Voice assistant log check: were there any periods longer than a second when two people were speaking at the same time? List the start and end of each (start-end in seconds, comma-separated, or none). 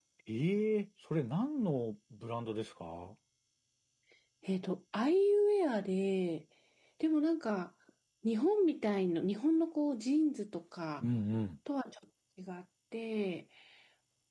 none